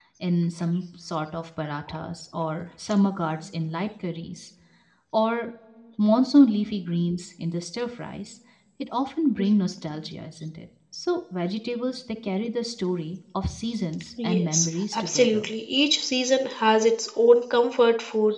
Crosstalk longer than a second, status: present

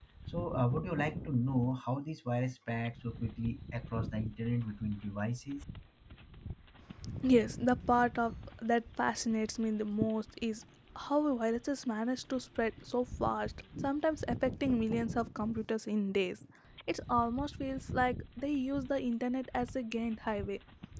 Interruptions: none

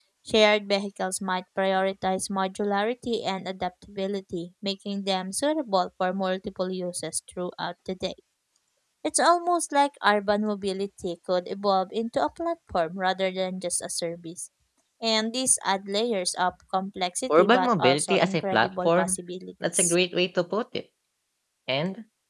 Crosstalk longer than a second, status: present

